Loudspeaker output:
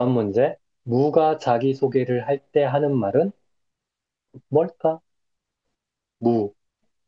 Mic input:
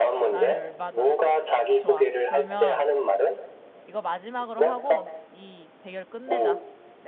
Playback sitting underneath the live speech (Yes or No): No